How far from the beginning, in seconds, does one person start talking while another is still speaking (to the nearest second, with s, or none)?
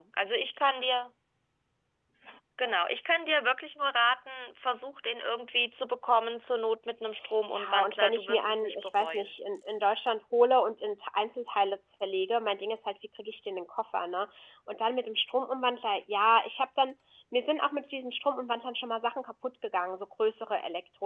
8 s